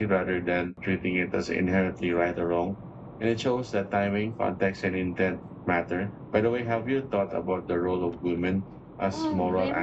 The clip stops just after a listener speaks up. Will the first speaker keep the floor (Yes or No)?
No